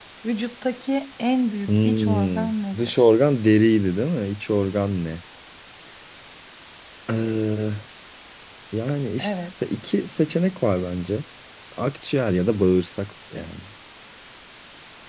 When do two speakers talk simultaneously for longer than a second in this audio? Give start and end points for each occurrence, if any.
1.7-3.0

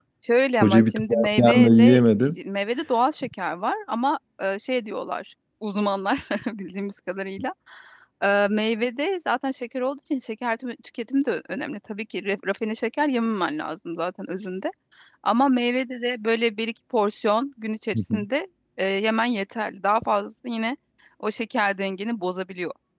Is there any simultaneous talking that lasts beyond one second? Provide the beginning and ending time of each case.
0.6-2.0

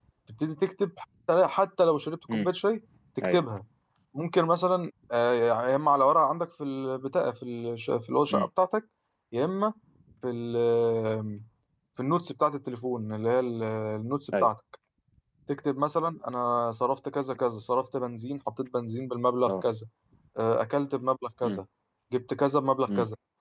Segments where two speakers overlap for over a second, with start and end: none

